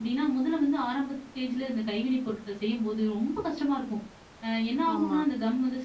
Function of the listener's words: listening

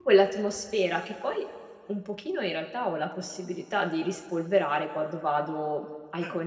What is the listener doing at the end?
listening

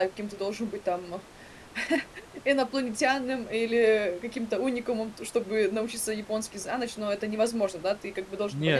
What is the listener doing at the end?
taking over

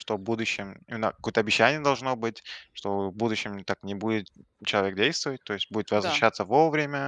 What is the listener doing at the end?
listening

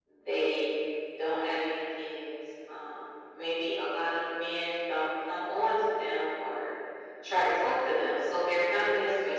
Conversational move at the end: listening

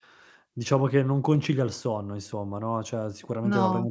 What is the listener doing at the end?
listening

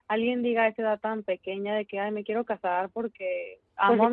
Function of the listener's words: listening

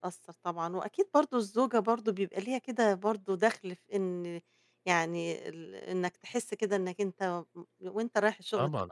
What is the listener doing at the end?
taking over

